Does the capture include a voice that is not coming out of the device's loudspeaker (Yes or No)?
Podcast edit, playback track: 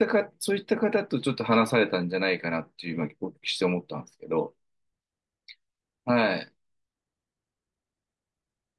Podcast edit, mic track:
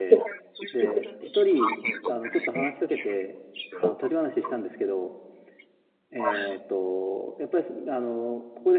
Yes